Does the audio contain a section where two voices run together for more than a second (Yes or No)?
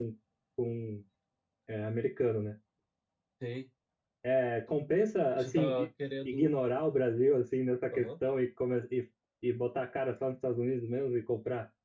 No